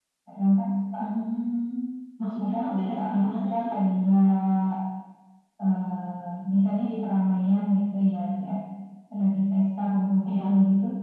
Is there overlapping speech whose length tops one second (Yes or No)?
Yes